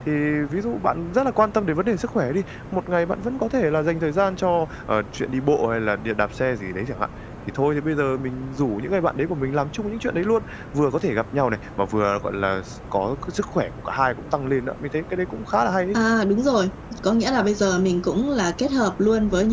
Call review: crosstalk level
none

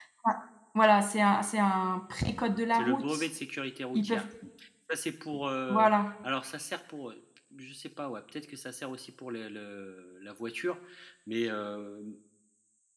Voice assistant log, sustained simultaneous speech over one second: none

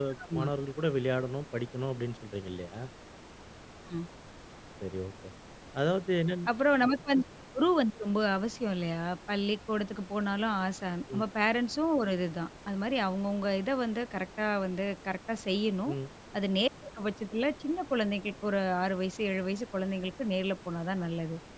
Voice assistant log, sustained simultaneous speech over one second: none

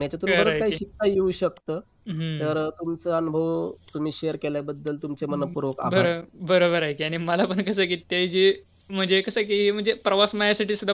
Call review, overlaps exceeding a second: none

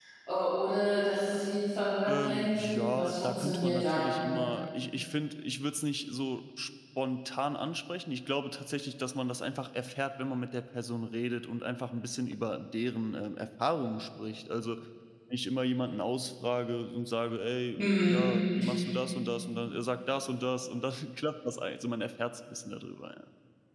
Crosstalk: present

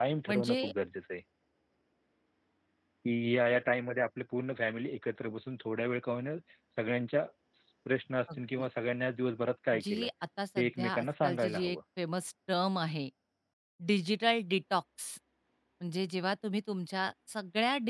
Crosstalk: present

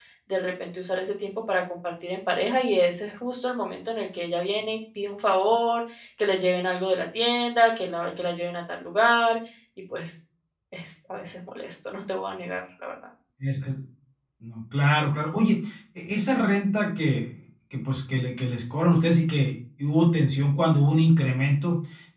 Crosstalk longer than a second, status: none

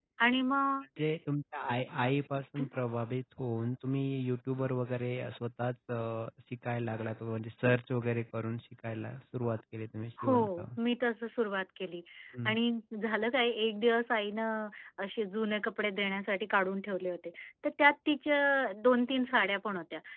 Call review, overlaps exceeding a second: none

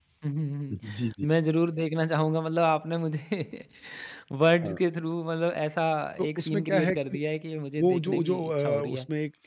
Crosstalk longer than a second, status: present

